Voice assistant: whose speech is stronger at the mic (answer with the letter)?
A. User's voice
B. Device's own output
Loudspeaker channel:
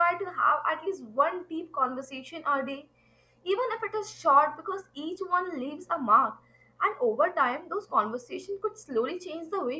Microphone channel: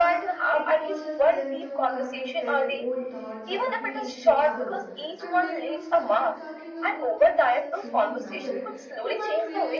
B